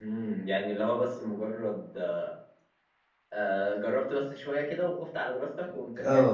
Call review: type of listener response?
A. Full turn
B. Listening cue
A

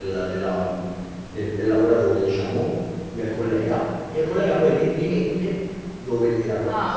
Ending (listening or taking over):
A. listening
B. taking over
B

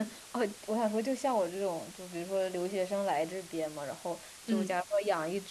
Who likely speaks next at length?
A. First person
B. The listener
A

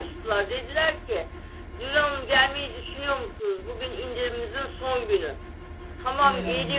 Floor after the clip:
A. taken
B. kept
B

